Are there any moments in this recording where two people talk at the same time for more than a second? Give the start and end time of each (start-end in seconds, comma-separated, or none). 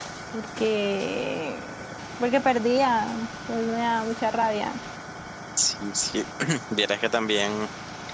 none